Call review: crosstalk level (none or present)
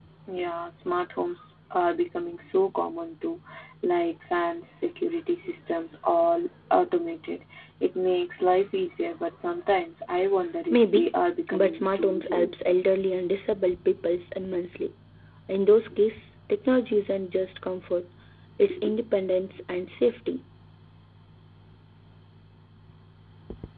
present